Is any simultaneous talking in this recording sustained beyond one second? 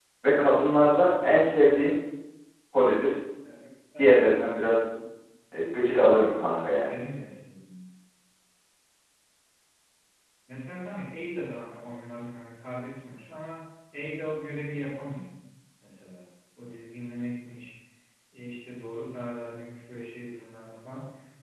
No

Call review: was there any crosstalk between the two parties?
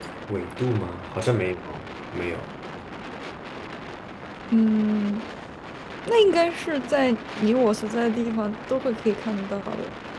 No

